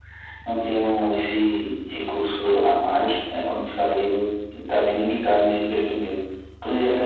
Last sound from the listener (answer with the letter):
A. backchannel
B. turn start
A